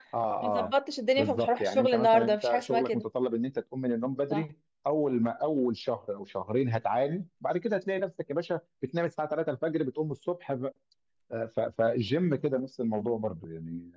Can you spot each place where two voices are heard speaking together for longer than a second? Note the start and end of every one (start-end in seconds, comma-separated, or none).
1.2-3.0